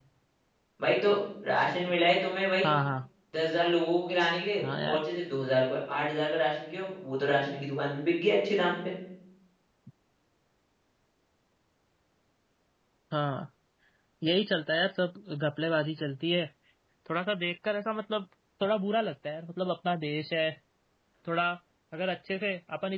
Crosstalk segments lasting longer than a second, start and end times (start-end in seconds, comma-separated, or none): none